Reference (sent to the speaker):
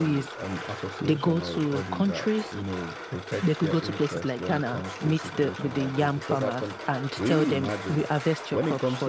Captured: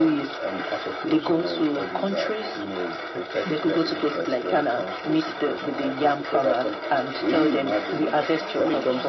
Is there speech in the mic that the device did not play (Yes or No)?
Yes